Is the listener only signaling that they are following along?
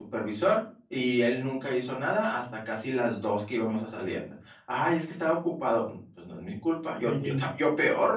Yes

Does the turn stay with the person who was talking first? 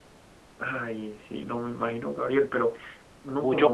No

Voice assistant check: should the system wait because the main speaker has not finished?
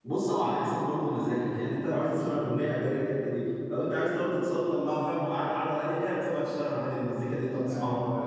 No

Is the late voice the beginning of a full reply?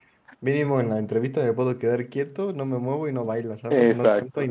Yes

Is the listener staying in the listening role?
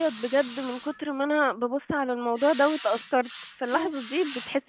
Yes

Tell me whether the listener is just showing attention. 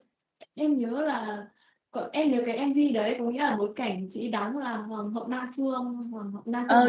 No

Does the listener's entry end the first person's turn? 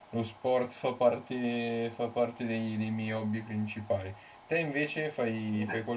Yes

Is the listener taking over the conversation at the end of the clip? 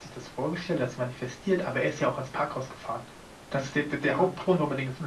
No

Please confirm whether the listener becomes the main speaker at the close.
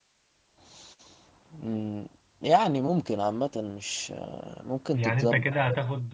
Yes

